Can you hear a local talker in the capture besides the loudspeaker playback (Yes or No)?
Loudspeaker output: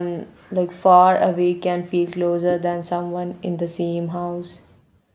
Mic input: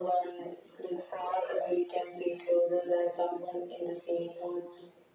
No